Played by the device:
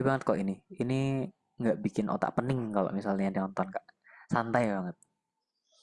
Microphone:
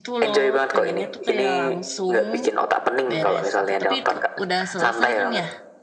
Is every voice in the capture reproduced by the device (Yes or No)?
No